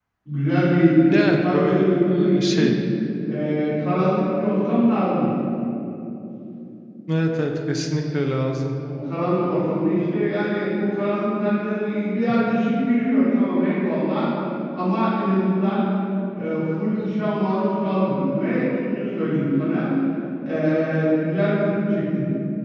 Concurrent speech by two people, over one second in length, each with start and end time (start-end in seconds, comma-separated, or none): 1.1-2.7